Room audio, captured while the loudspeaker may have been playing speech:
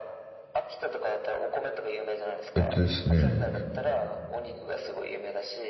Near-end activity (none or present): present